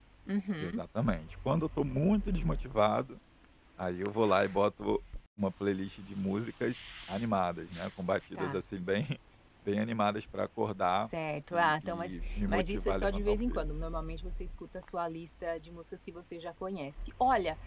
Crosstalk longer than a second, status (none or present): present